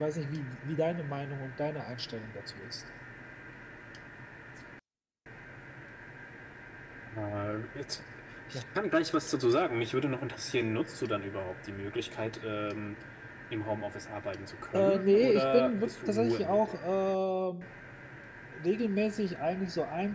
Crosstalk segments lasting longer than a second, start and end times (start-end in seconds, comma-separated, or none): 14.7-16.8